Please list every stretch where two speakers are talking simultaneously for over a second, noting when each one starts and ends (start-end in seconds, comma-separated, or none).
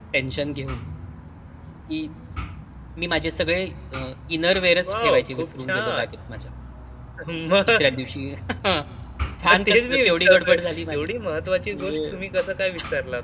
4.8-6.0, 9.4-11.1